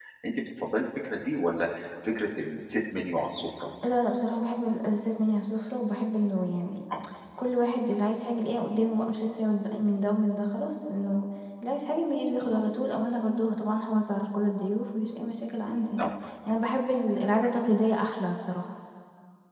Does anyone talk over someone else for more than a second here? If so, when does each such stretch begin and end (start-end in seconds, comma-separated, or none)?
none